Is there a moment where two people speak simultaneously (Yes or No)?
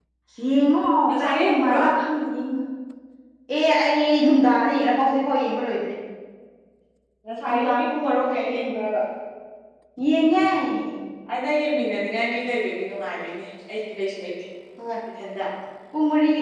Yes